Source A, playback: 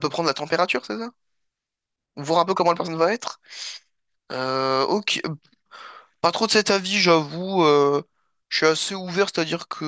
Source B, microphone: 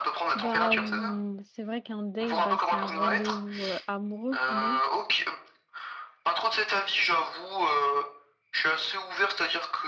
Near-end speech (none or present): present